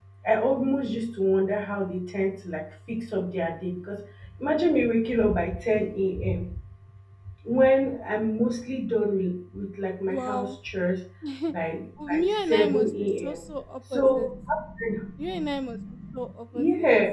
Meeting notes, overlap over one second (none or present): present